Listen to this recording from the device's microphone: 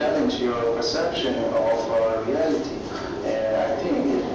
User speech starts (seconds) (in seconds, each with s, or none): none